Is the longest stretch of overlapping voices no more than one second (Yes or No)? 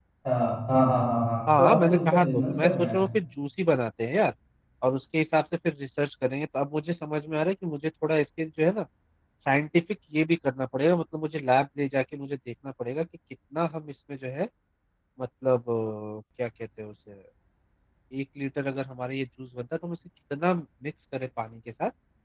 No